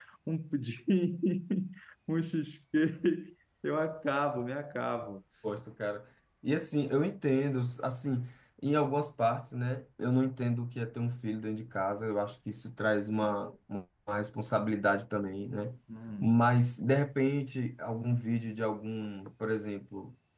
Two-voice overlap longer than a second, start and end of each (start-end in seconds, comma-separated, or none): none